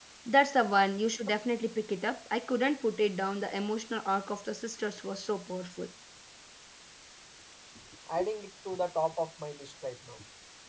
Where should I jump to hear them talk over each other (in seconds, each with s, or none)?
none